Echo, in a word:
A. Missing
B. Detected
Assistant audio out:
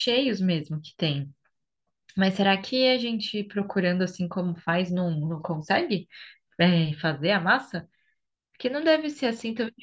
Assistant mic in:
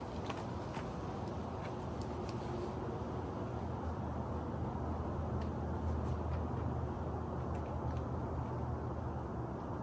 A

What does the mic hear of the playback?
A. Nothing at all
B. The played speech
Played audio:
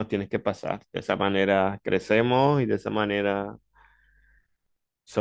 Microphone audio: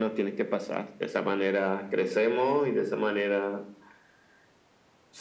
B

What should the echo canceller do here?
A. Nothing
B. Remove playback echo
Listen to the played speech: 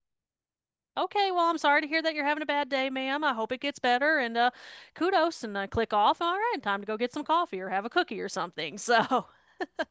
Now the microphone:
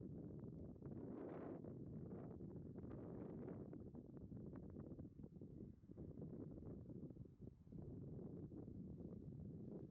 A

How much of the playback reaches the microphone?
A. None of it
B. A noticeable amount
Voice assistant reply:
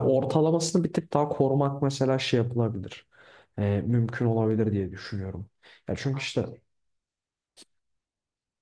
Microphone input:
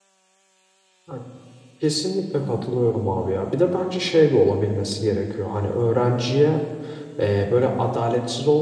A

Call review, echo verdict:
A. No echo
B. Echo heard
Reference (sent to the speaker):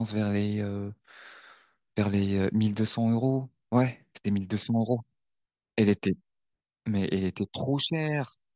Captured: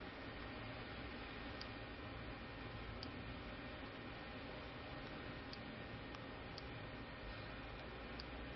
A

